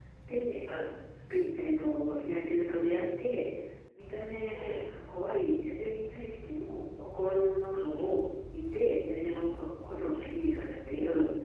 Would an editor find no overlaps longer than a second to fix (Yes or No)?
Yes